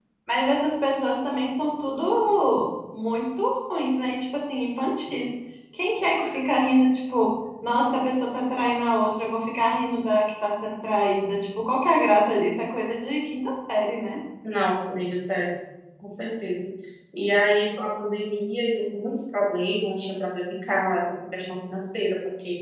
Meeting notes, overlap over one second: none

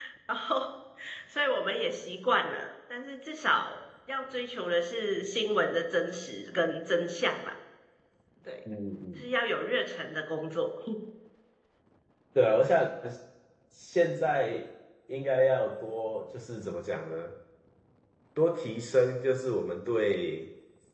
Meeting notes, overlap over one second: none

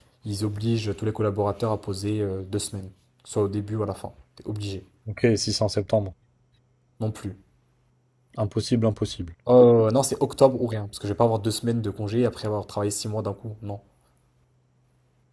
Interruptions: none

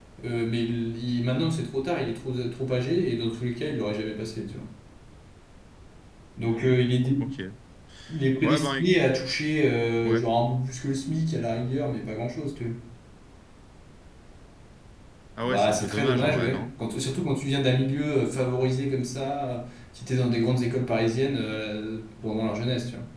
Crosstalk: present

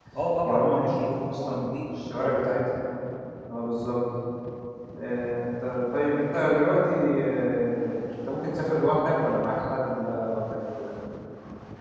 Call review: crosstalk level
present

